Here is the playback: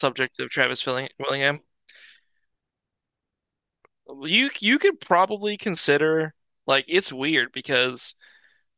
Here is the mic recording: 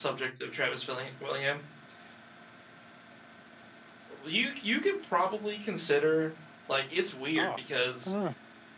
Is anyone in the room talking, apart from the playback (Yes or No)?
Yes